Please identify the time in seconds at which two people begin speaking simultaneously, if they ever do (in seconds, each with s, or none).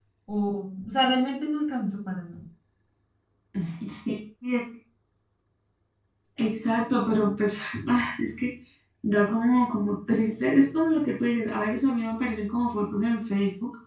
none